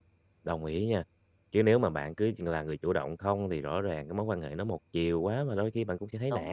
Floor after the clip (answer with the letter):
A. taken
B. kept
A